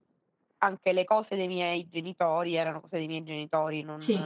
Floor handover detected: No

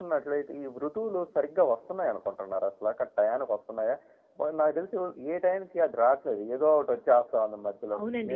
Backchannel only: No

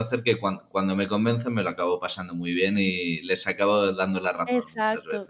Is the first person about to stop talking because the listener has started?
Yes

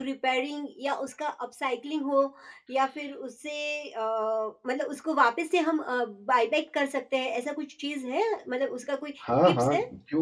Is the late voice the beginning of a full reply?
Yes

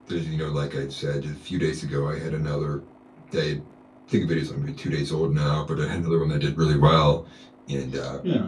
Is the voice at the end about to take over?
No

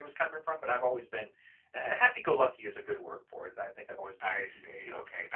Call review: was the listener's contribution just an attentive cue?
No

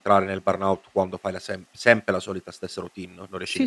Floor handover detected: Yes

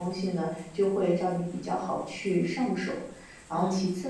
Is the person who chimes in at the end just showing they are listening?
Yes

